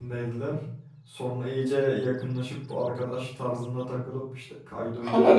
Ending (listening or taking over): taking over